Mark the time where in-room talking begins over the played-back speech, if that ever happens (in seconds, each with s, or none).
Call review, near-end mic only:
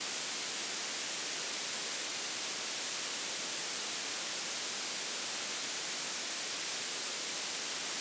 none